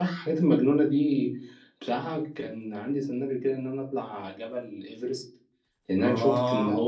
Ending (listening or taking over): listening